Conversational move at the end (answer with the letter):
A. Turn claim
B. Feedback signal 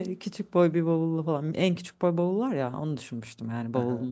A